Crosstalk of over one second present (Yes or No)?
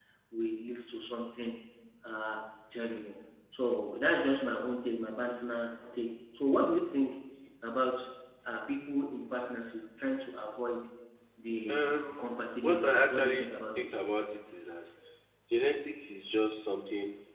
Yes